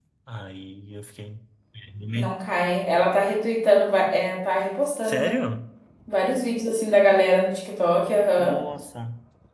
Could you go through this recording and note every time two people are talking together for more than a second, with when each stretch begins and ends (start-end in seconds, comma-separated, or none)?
none